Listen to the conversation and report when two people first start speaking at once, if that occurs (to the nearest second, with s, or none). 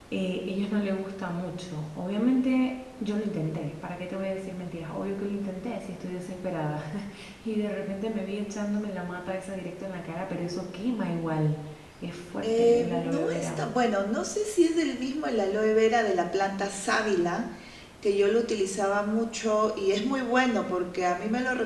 12 s